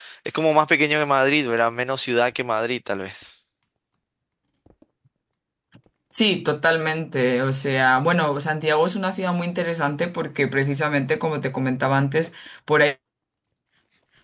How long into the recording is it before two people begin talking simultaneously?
none

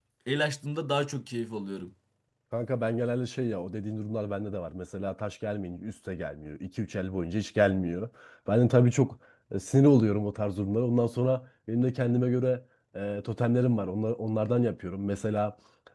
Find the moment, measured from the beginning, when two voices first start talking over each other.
none

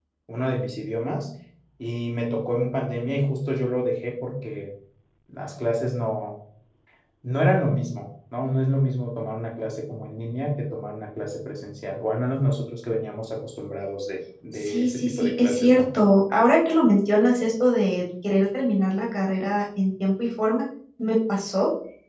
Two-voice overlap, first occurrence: 14.6 s

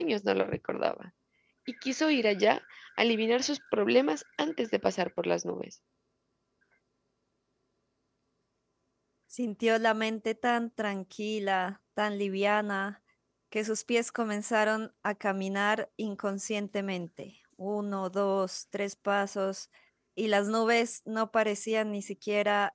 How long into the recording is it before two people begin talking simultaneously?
none

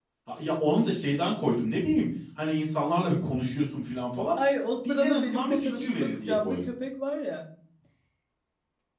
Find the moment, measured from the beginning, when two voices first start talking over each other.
4.8 s

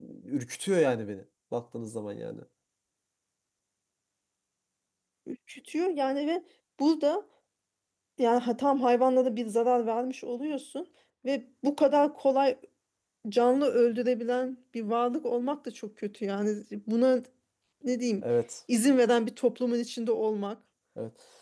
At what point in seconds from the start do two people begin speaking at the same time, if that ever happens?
none

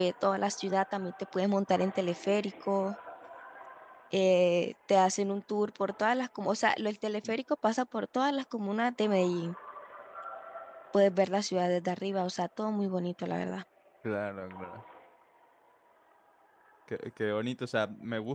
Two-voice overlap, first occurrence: none

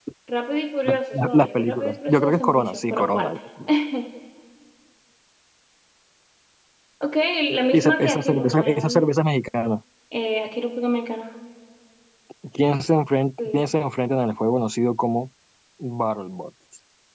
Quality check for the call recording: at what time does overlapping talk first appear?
0.9 s

